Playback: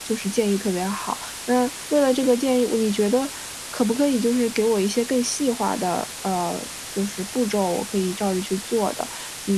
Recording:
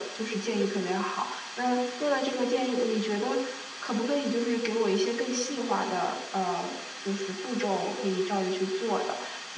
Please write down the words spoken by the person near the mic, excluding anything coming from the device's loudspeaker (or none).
none